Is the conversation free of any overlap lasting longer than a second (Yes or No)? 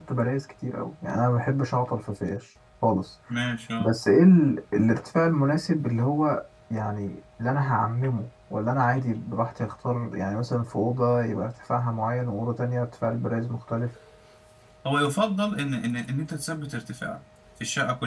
Yes